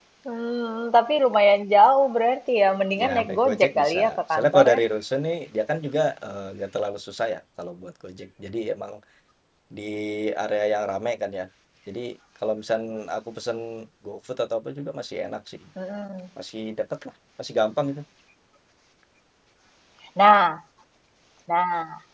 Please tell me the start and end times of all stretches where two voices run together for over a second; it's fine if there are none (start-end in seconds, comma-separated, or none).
3.0-4.8